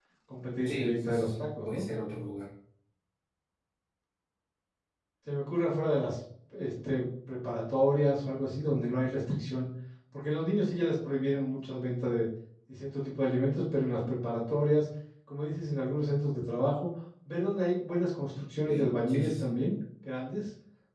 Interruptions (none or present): present